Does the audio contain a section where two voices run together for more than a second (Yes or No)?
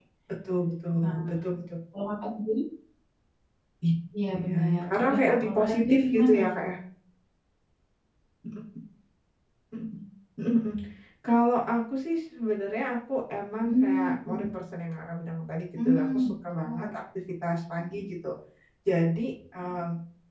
Yes